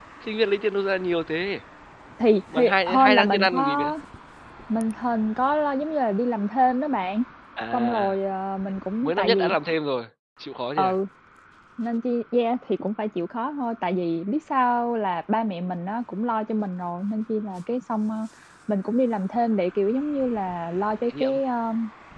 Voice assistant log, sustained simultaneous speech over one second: present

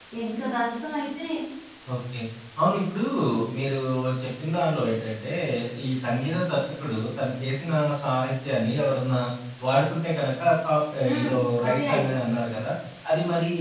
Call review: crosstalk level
present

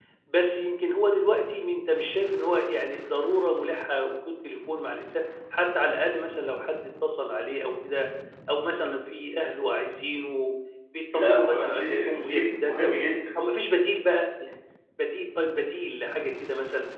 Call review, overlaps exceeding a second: present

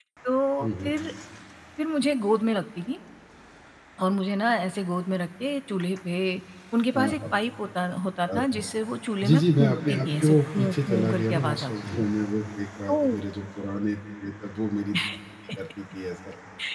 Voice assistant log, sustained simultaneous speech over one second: present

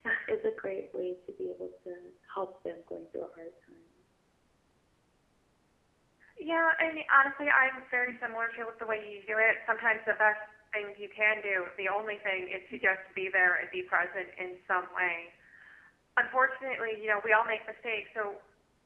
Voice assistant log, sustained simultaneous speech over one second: none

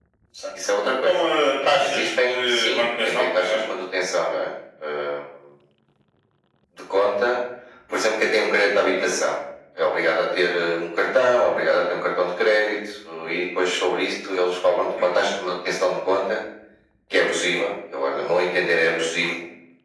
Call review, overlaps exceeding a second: present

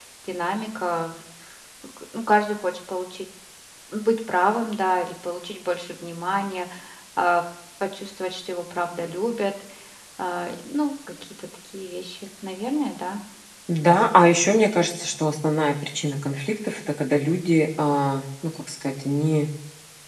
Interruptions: none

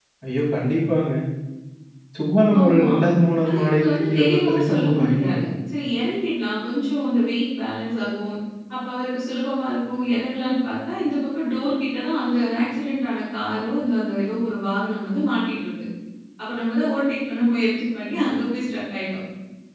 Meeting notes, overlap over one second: present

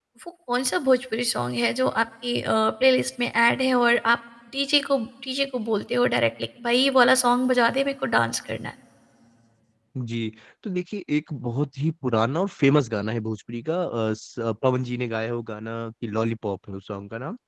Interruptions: none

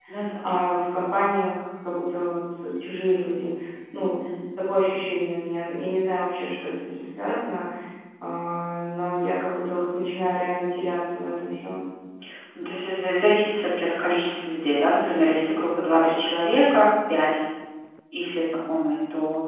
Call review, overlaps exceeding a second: none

